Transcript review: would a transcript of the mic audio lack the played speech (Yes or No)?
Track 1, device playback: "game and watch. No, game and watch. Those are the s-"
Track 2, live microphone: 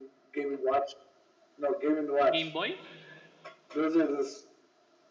No